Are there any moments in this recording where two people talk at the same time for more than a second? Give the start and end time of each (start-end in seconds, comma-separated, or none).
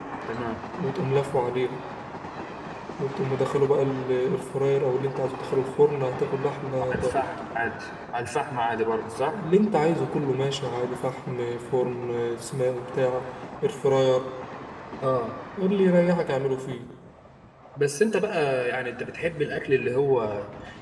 none